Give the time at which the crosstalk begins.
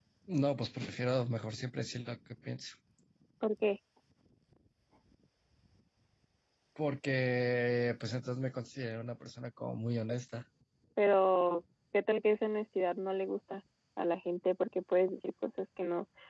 none

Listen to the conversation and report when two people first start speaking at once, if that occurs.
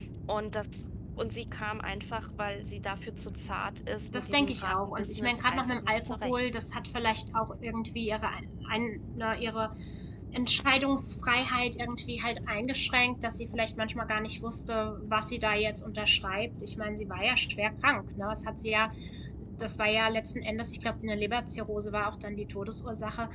4.1 s

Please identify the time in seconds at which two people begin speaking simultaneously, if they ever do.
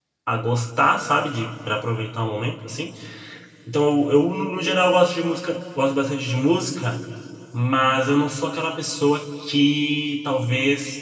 none

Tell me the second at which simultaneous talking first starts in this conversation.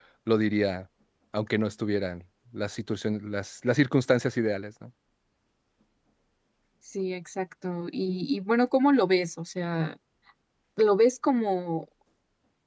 none

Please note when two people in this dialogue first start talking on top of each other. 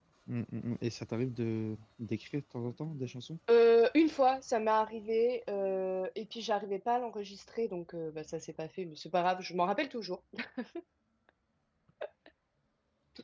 none

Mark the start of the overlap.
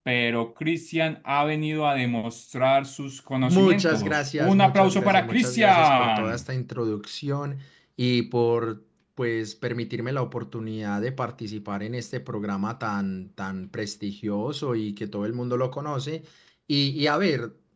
3.4 s

